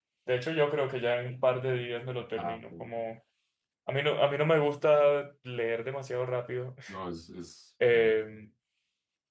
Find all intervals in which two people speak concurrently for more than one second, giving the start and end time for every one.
none

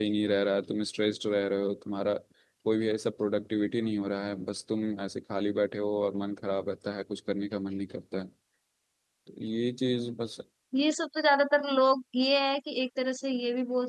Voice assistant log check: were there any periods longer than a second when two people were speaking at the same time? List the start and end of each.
none

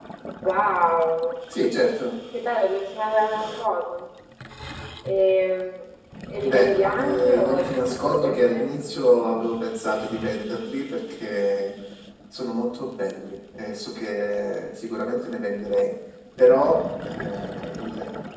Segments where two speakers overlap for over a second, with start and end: 6.3-8.7

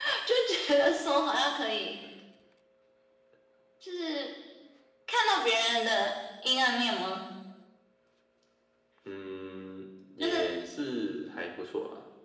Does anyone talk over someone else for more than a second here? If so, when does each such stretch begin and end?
none

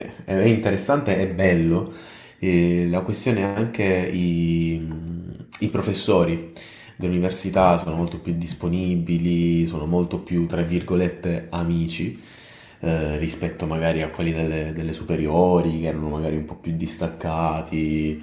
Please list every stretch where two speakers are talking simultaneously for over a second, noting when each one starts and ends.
none

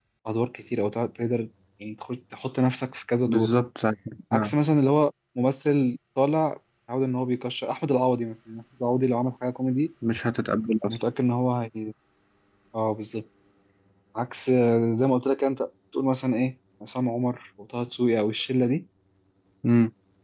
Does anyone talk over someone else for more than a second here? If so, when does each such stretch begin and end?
none

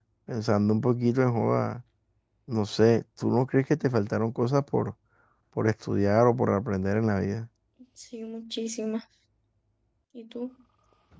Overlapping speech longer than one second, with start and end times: none

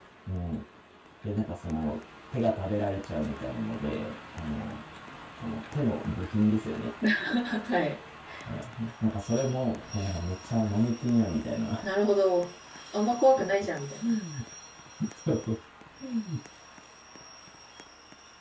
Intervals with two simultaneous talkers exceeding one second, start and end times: none

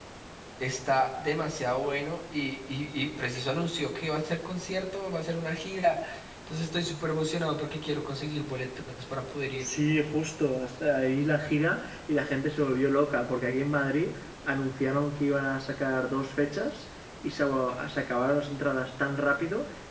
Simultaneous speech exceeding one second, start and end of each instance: none

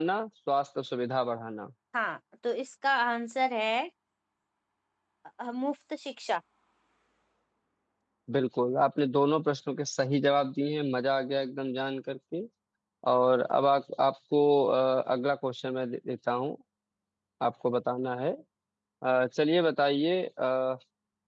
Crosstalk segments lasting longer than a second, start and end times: none

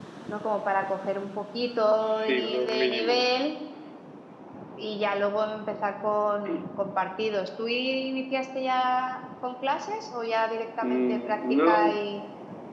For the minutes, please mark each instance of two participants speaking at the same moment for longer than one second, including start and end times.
2.0-3.2, 10.8-12.0

